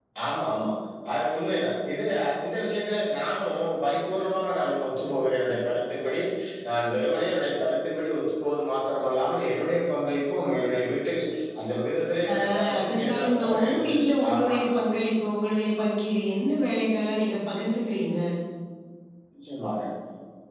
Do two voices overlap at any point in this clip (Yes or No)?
Yes